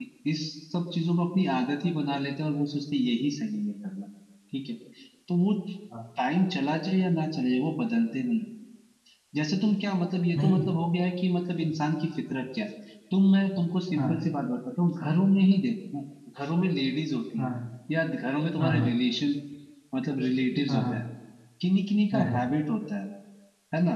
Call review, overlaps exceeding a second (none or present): none